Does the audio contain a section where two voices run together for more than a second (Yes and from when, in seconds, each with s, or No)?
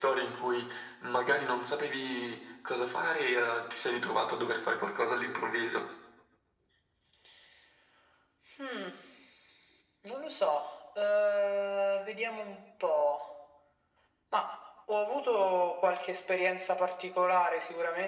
No